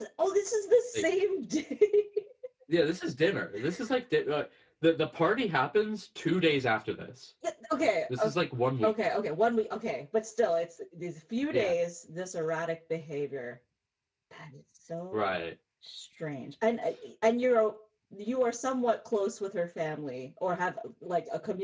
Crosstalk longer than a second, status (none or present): none